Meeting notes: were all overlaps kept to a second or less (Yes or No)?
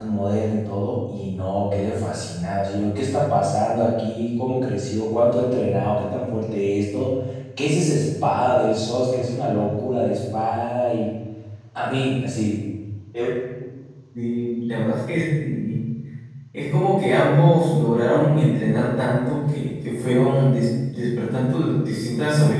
Yes